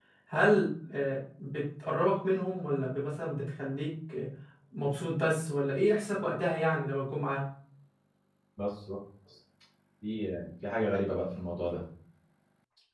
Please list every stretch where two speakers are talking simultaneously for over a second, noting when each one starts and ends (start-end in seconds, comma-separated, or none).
none